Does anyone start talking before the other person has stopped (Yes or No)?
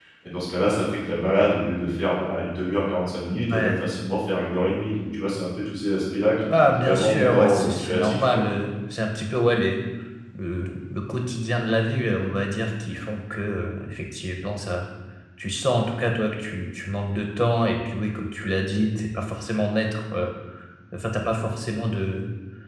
Yes